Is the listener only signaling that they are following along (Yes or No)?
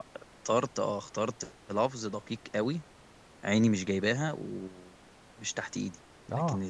Yes